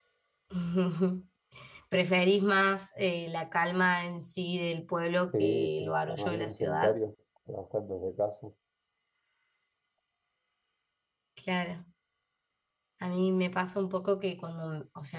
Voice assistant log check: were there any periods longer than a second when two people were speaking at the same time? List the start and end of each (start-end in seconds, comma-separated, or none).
5.4-7.0